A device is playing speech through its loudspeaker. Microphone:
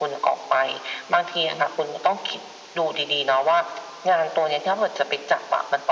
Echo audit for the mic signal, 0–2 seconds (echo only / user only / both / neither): echo only